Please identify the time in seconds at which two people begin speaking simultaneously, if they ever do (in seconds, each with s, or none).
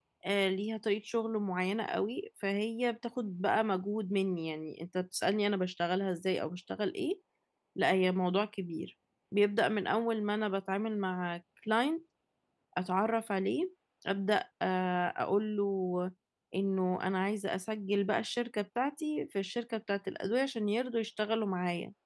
none